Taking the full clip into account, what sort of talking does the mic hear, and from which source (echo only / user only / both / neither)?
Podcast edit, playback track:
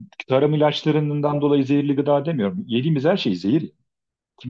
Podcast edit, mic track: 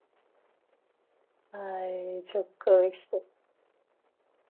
user only